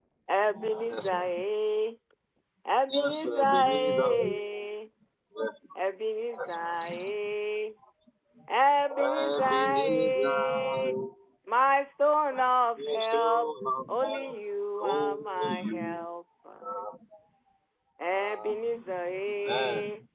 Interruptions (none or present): present